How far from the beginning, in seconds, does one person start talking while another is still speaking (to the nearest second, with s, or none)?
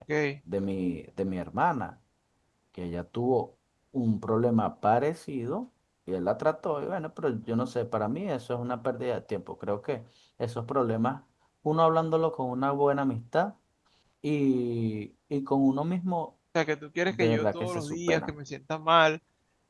17 s